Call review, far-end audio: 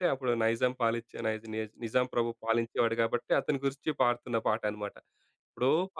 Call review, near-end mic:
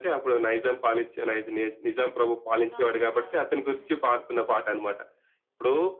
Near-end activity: present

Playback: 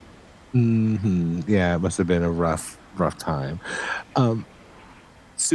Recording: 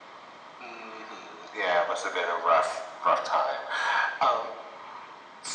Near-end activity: none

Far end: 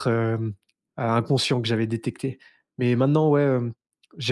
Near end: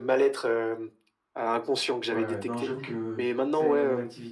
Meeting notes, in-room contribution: present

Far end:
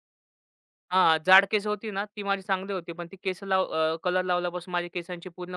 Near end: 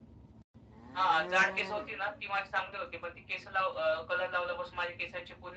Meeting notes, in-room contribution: none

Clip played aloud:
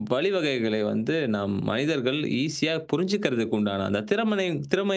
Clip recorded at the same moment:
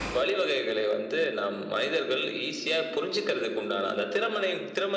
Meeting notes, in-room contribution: none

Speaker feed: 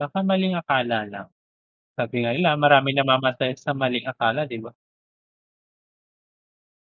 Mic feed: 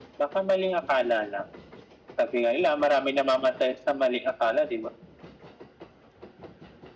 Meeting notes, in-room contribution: none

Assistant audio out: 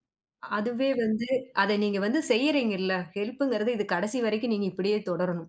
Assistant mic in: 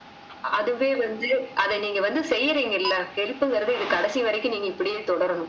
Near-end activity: none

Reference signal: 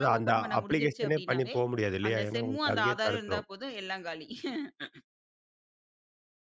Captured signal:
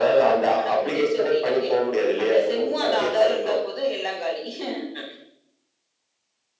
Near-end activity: none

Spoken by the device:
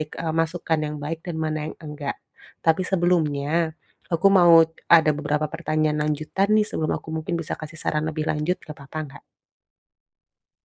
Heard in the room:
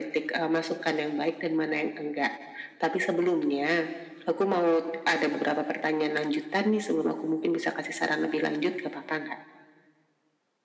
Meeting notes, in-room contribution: none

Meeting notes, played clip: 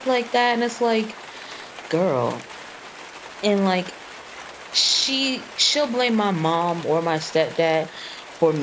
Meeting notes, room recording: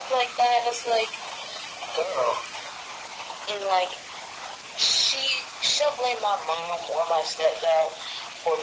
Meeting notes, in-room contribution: none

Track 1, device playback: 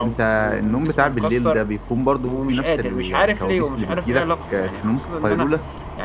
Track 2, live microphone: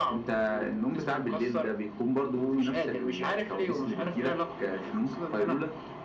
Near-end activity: none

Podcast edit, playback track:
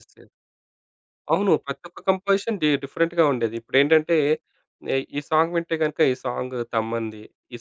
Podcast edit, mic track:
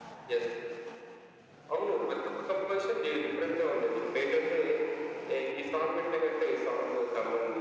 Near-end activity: none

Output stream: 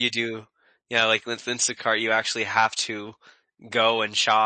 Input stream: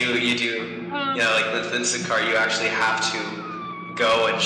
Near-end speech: present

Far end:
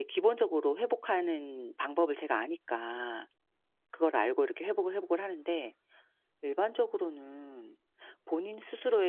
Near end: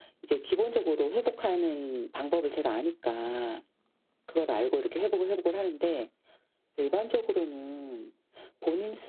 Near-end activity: none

